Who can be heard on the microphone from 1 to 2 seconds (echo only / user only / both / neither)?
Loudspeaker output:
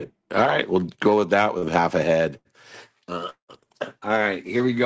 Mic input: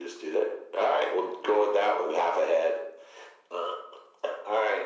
echo only